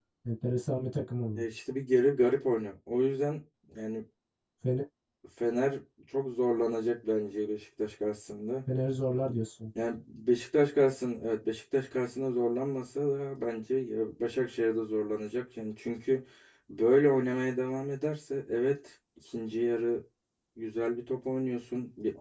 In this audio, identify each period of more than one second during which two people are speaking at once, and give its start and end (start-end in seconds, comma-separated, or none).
none